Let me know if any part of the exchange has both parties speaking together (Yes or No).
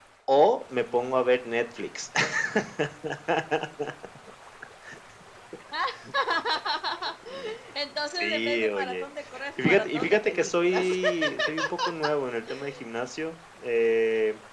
Yes